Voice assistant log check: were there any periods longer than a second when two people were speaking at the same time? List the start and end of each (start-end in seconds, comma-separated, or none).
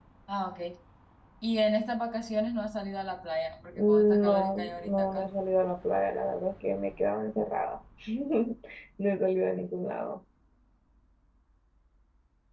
3.8-5.3